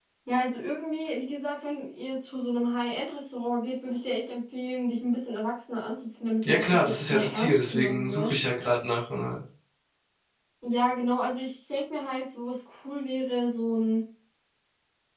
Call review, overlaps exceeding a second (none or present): present